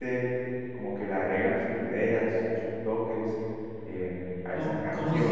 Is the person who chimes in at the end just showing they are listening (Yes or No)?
No